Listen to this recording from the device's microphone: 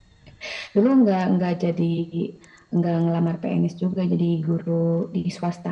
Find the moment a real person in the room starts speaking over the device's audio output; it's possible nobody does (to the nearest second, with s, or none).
none